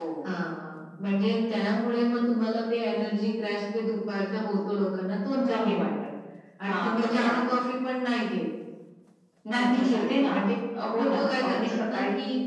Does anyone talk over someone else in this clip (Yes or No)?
Yes